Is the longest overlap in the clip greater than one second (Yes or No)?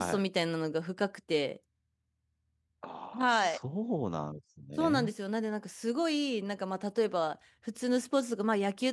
No